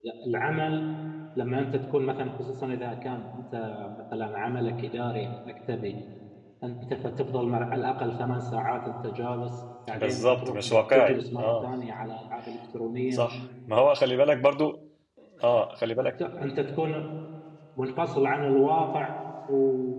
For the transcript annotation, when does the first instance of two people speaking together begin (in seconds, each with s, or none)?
9.9 s